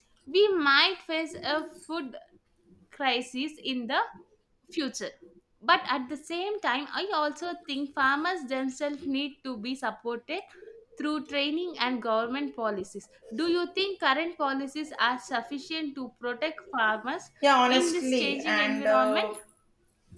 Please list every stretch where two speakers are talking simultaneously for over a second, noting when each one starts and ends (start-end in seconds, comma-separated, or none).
17.7-19.3